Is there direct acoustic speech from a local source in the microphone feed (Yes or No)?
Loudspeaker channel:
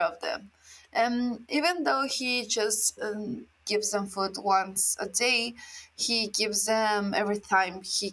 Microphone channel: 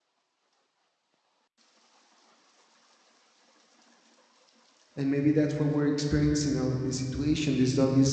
Yes